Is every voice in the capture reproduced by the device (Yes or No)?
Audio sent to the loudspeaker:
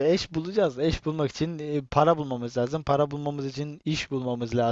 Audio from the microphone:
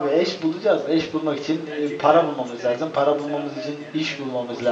No